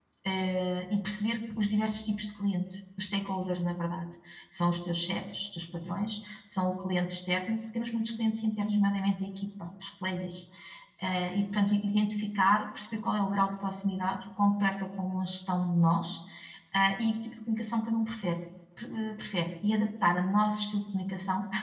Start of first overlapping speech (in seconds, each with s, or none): none